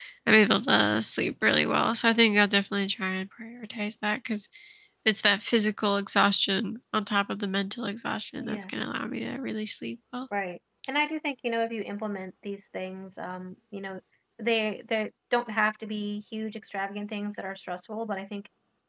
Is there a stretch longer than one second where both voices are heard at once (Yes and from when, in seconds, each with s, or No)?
No